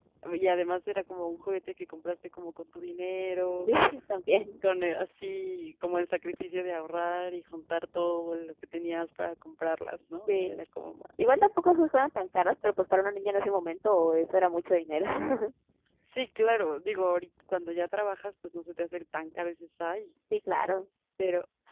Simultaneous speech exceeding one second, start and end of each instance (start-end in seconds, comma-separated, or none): none